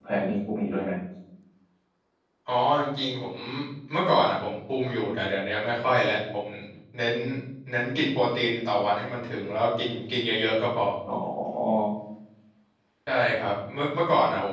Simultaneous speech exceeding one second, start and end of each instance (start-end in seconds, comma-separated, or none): none